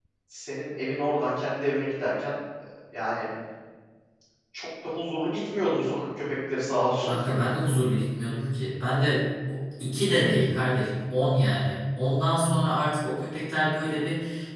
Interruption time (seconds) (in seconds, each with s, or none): none